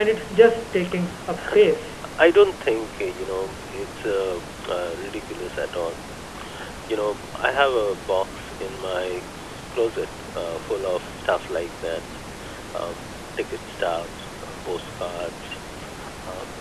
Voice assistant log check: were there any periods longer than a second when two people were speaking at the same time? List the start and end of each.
none

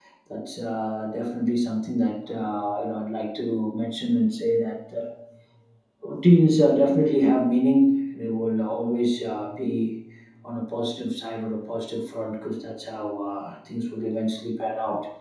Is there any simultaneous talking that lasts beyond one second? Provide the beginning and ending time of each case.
none

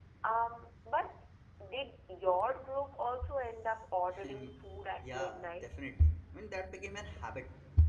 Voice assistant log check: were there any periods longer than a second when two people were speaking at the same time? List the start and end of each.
4.2-5.7

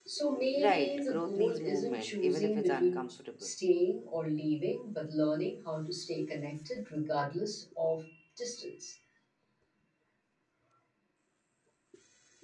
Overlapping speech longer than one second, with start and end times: 0.5-3.5

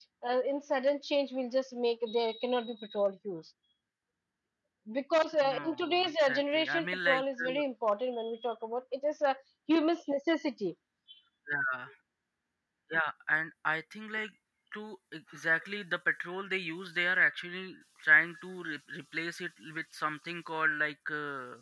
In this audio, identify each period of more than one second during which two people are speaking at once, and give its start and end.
5.4-7.6

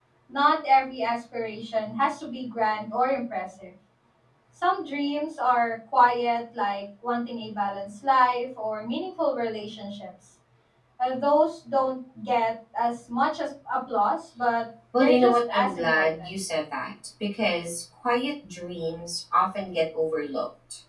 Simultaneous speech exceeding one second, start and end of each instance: 14.9-16.3

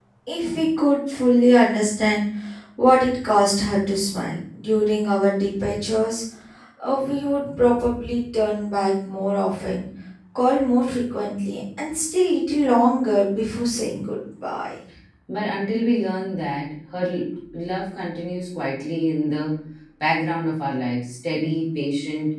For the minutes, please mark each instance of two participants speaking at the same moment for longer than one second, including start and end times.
none

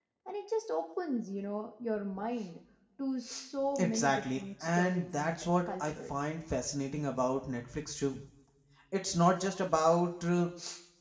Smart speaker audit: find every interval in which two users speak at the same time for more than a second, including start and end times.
3.8-6.2

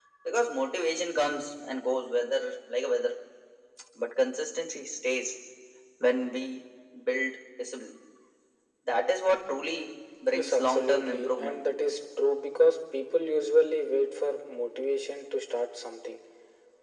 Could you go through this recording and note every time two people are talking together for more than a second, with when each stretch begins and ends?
10.3-11.6

